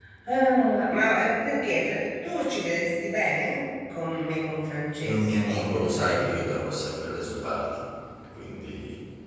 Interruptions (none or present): present